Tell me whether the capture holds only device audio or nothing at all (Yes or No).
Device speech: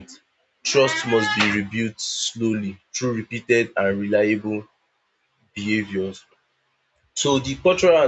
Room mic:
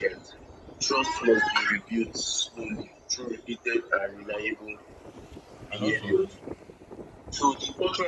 No